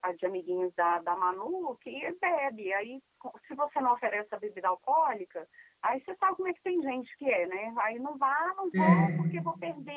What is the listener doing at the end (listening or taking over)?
listening